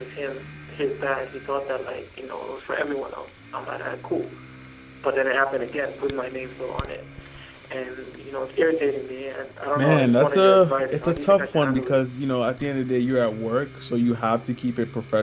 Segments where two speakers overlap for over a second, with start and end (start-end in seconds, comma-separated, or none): 9.8-12.0